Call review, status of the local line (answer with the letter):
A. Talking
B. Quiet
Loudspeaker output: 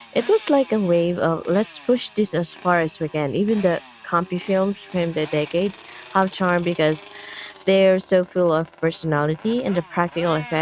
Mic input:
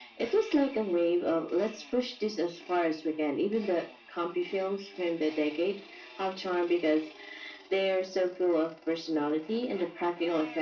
B